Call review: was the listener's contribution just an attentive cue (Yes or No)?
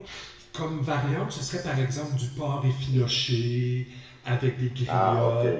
Yes